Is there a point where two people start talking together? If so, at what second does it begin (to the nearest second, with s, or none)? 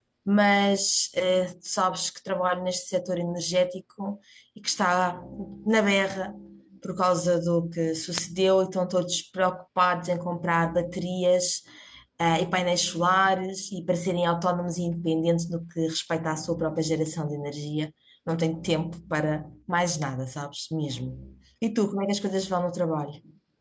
none